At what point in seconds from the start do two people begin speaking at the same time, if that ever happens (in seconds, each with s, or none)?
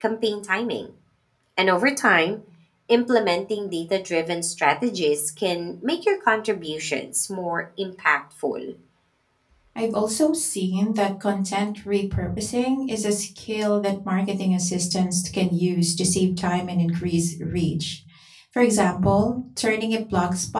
none